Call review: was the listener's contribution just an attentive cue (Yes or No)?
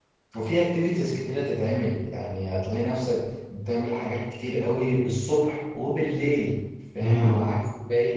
Yes